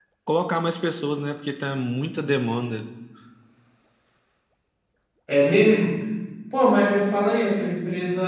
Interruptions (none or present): none